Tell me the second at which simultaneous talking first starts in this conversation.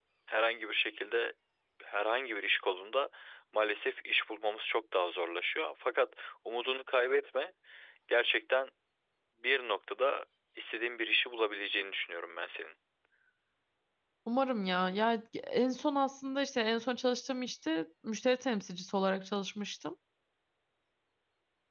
none

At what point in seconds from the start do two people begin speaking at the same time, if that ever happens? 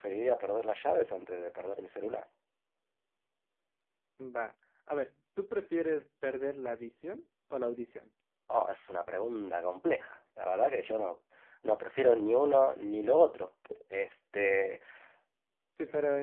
none

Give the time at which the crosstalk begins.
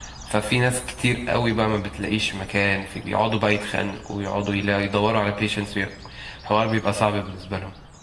none

